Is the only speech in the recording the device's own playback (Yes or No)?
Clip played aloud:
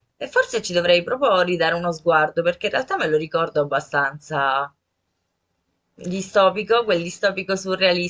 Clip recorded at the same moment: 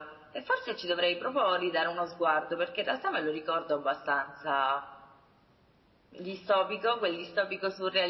Yes